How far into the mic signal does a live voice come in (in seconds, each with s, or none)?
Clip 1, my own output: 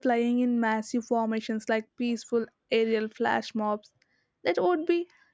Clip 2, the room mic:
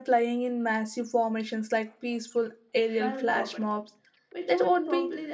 3.0 s